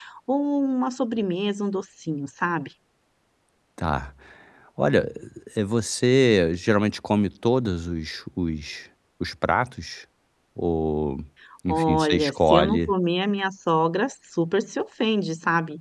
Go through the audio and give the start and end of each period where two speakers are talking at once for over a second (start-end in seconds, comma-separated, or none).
11.7-12.9